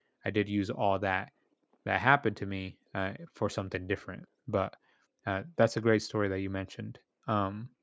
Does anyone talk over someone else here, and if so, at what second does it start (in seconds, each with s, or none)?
none